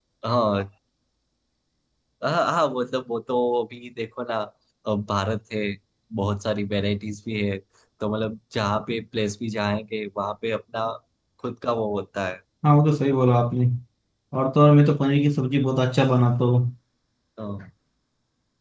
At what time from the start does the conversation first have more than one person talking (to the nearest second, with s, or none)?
none